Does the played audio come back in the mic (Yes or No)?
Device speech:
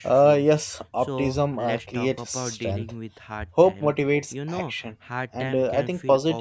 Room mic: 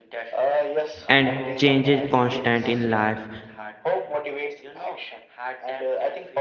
Yes